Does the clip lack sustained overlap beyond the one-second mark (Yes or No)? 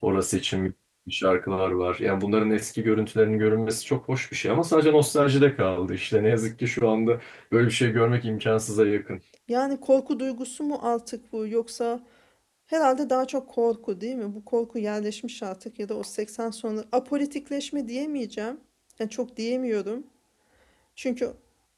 Yes